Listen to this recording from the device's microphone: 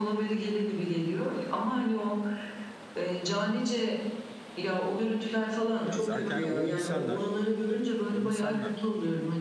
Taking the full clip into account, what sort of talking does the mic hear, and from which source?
both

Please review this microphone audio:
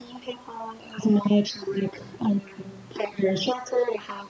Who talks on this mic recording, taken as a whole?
echo only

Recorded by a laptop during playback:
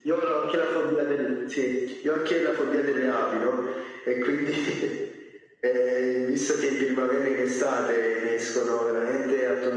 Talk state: echo only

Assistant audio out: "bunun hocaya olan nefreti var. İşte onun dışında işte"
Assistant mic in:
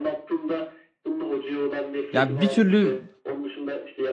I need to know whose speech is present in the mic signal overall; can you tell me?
both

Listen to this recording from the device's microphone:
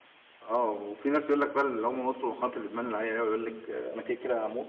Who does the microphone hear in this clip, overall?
user only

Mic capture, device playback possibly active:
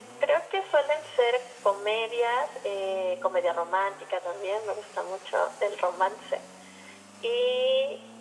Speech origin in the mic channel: echo only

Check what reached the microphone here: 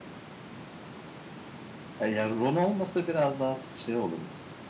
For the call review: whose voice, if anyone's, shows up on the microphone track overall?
user only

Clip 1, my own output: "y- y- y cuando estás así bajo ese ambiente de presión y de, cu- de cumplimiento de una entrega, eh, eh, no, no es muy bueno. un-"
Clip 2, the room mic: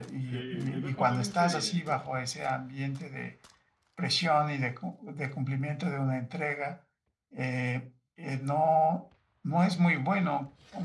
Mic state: both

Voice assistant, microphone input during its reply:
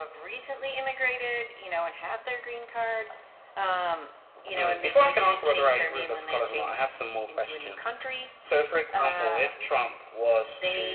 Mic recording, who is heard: echo only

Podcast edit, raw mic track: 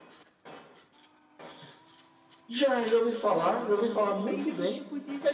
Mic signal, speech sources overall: both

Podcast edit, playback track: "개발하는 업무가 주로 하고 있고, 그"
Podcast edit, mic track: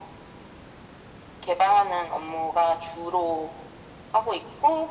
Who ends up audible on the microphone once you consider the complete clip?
echo only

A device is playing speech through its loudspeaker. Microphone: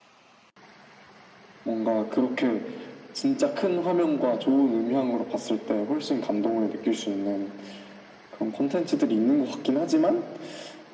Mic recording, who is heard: echo only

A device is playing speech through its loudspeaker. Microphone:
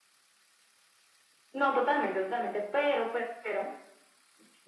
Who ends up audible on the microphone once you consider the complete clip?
echo only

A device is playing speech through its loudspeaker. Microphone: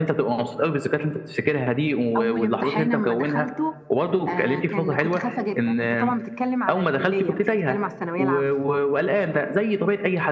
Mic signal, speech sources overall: both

